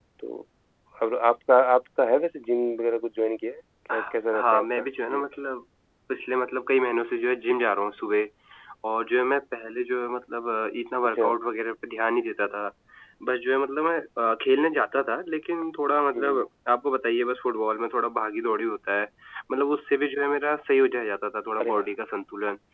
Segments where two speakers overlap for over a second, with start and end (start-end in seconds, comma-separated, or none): 3.9-5.3